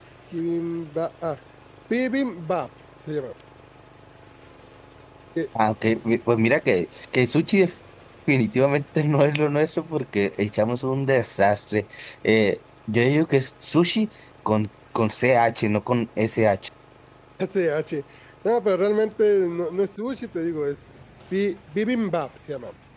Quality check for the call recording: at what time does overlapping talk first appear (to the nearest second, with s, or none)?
none